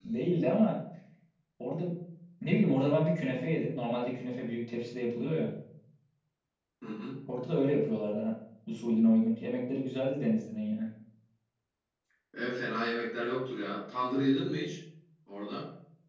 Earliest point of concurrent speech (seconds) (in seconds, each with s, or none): none